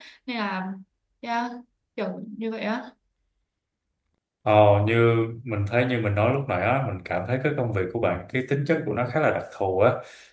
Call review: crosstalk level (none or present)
none